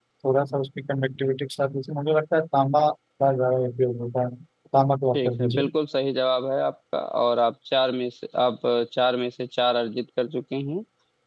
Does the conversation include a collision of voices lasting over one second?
No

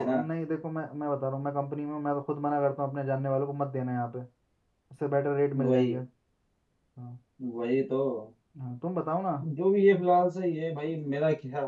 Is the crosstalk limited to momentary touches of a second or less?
Yes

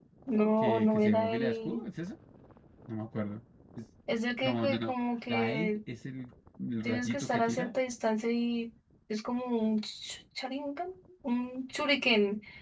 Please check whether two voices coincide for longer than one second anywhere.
Yes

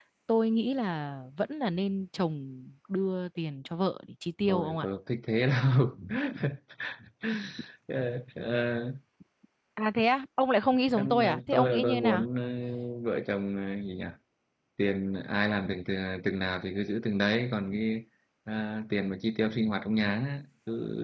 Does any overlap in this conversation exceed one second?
Yes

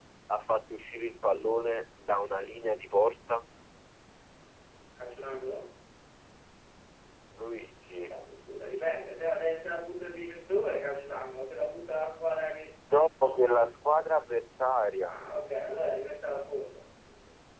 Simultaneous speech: No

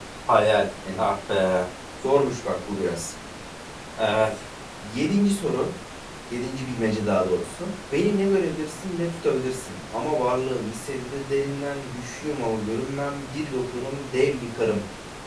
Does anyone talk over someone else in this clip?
No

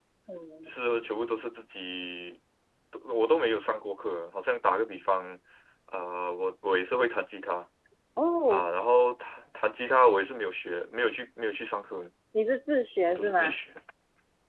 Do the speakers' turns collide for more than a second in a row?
No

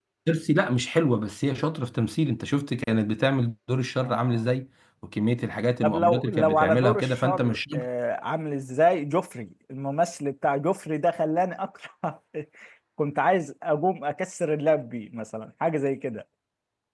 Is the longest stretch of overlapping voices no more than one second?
No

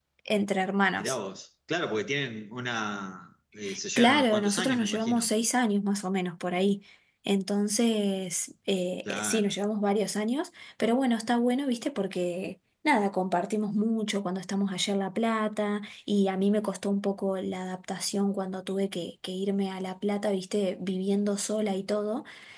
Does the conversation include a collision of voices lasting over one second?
Yes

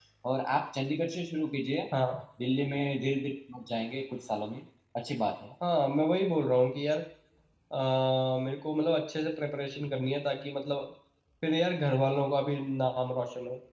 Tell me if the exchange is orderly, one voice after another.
Yes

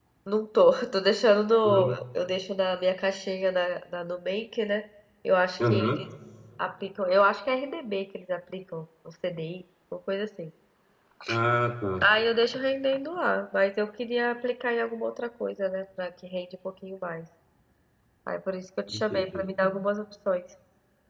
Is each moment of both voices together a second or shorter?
Yes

